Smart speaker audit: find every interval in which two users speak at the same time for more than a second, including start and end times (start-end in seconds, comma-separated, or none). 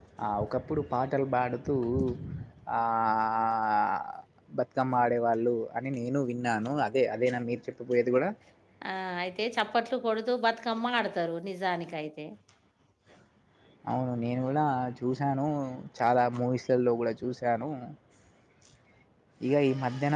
none